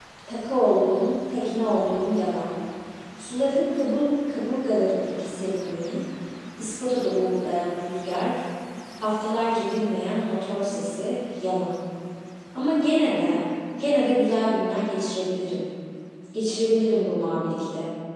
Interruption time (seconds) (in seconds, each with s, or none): none